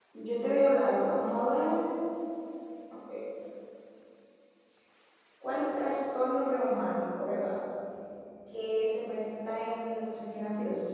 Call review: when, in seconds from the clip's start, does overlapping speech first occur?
none

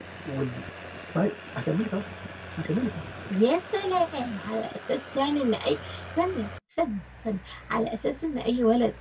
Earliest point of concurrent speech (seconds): none

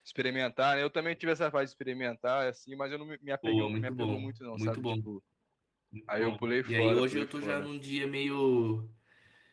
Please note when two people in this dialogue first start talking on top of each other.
3 s

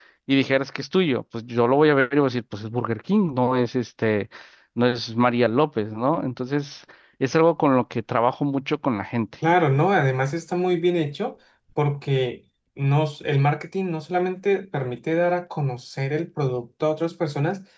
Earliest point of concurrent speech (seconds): none

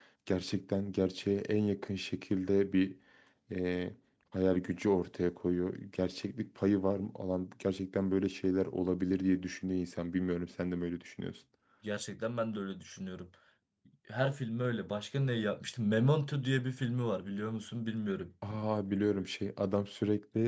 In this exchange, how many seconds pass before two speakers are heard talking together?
none

